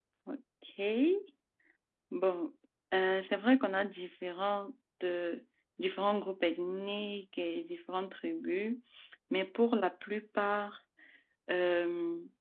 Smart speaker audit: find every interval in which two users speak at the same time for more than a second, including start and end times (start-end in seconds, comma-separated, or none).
none